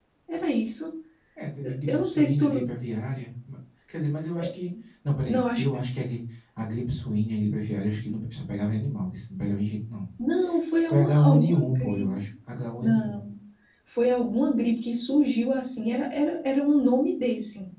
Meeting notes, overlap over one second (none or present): present